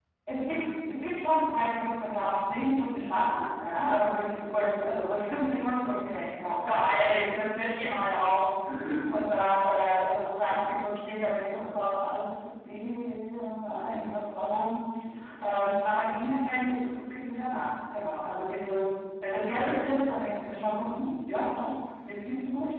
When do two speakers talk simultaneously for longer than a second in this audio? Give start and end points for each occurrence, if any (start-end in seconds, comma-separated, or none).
none